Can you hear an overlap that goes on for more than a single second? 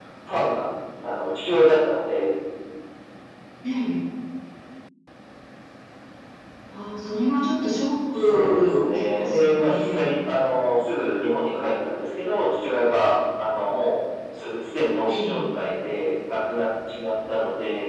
Yes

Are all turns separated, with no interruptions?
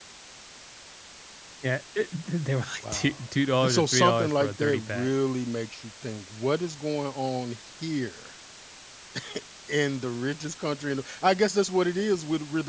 No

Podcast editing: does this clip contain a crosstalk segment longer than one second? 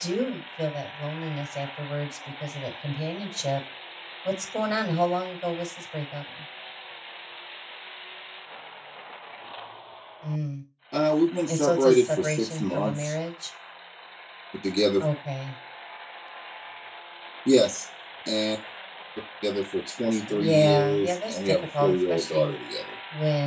Yes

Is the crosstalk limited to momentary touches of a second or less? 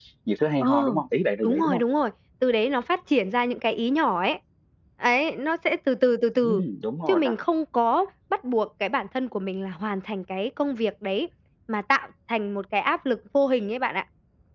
Yes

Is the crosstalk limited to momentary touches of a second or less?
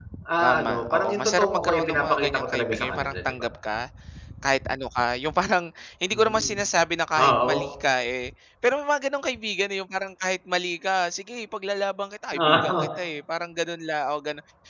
No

